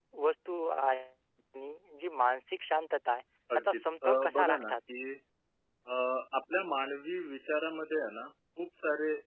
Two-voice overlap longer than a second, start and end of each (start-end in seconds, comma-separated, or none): 3.5-4.8